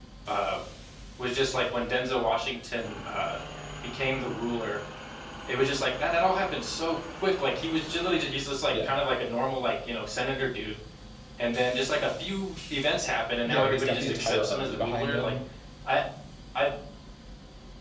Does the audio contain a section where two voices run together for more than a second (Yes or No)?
Yes